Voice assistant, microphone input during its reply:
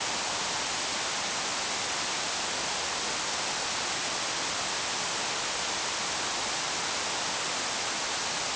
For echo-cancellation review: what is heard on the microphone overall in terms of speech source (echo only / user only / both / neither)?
neither